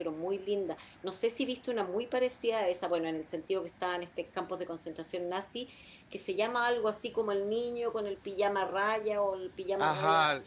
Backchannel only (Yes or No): No